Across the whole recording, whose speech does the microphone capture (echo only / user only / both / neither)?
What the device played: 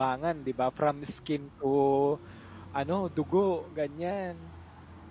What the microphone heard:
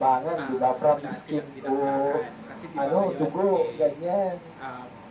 both